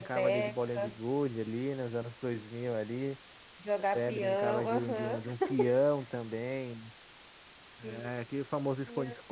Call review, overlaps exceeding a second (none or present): present